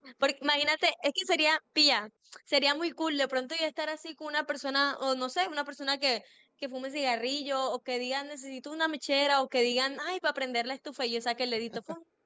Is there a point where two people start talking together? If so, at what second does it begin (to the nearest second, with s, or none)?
none